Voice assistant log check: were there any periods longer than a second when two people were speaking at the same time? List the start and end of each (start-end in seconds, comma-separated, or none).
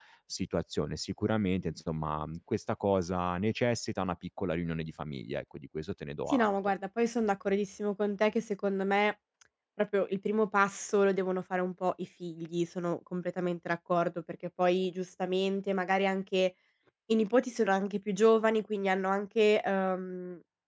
none